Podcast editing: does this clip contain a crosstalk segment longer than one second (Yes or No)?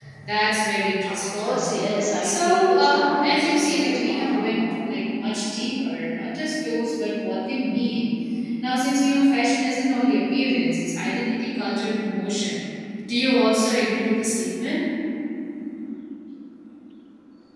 Yes